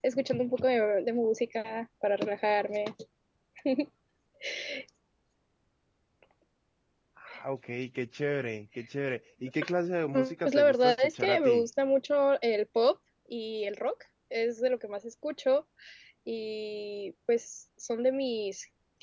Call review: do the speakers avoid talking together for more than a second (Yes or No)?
No